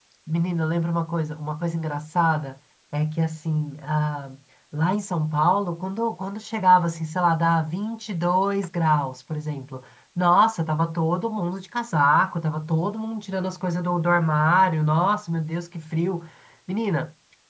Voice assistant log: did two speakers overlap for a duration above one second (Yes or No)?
No